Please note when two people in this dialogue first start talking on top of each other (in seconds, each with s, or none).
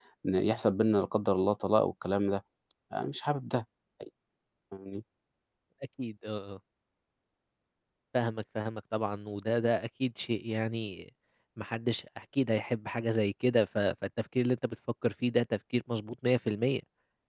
none